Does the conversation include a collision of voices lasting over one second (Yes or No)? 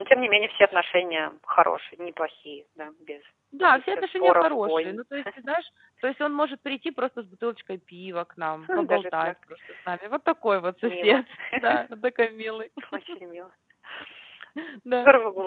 Yes